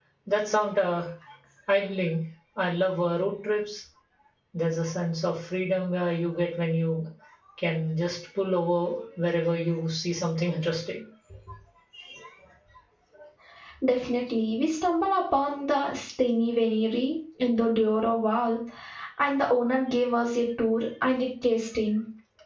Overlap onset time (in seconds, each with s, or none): none